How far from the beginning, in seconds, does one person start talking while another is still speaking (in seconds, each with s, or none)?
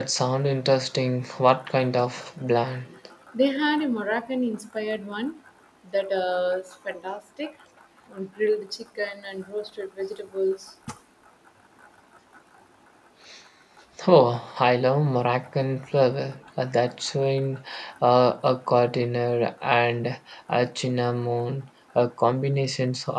none